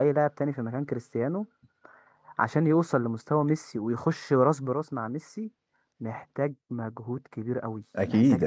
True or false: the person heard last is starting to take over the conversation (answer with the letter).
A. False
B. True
A